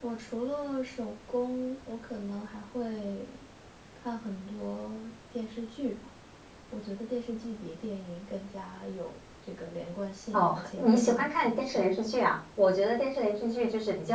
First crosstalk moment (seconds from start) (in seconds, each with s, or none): 10.3 s